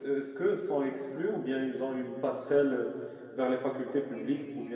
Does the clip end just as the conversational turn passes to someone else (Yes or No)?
Yes